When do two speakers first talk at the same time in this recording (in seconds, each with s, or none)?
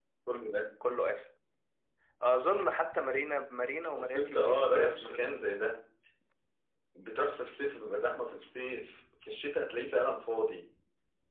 3.9 s